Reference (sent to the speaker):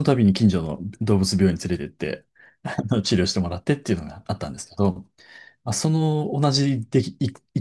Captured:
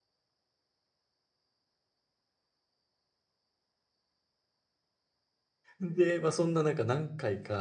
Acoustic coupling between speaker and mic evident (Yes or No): No